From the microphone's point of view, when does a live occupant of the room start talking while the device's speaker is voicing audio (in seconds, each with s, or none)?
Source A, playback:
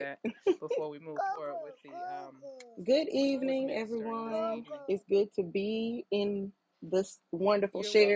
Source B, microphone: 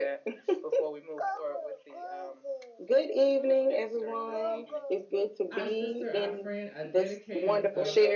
5.5 s